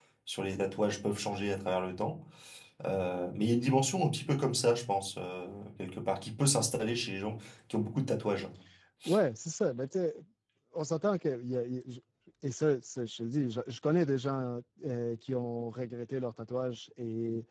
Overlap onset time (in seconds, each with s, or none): none